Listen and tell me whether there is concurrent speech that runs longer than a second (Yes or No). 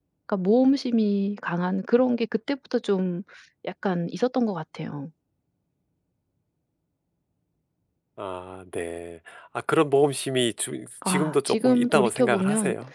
Yes